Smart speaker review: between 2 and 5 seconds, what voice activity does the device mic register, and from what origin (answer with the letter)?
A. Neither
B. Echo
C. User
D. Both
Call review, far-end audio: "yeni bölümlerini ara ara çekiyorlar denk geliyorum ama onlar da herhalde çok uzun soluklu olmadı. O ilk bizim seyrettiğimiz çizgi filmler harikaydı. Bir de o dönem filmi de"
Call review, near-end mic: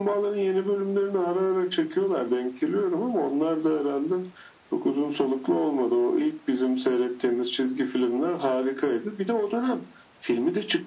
B